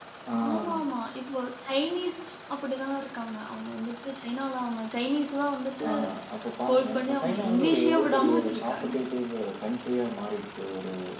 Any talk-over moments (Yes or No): Yes